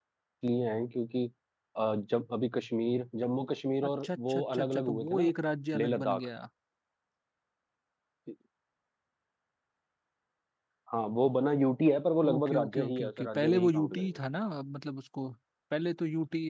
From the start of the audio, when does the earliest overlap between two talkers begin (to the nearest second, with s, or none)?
4 s